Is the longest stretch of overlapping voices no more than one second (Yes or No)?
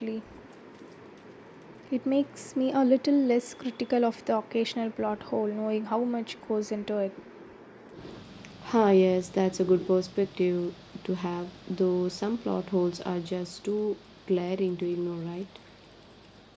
Yes